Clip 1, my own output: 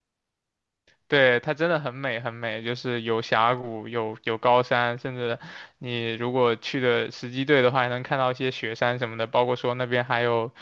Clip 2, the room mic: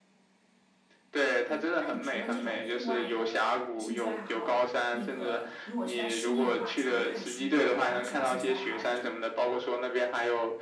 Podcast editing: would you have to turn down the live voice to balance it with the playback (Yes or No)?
No